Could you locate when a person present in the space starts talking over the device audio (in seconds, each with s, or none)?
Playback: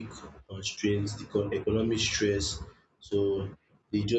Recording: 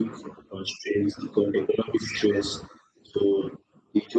none